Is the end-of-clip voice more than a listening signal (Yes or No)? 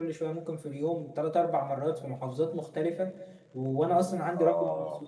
No